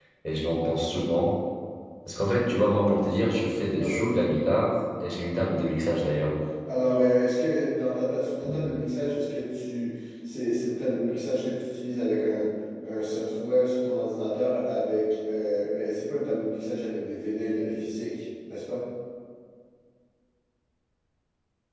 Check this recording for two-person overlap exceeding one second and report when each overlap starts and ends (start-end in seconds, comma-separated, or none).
none